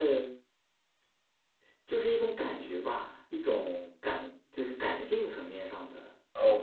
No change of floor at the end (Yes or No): No